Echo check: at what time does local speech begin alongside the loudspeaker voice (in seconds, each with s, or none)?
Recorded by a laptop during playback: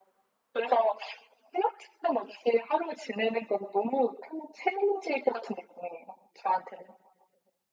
none